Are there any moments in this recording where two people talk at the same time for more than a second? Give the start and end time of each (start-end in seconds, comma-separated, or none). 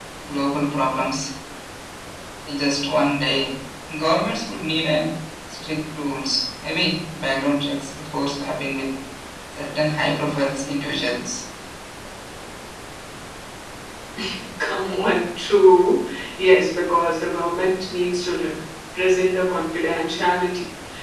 none